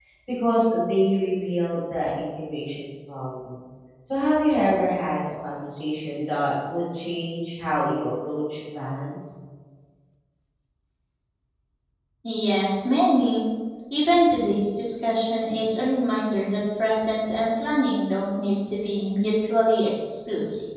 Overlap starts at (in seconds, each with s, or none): none